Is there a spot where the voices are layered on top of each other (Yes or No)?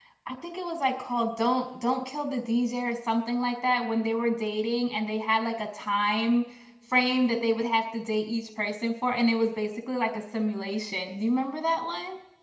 No